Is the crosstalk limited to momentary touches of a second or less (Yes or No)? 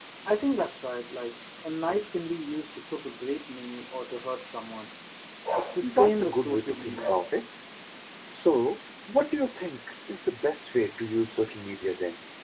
No